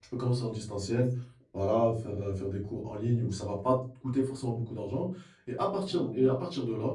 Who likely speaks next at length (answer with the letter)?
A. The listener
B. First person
B